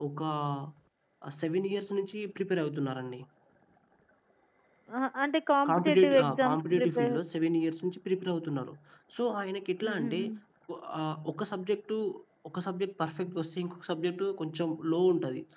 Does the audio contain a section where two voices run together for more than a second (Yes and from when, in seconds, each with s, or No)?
Yes, from 5.7 s